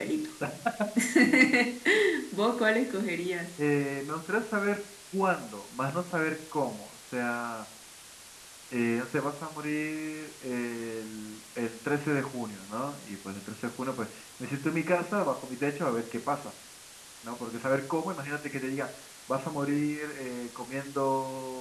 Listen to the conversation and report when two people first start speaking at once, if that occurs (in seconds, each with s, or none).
none